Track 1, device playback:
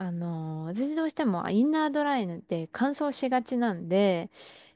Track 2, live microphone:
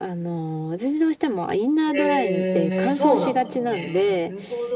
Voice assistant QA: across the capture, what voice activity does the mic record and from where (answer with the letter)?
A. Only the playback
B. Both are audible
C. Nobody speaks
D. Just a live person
B